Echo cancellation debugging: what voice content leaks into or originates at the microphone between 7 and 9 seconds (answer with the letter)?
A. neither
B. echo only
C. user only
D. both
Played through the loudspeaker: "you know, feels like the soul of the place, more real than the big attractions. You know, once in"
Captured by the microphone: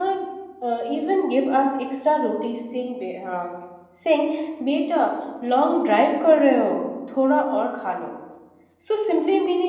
C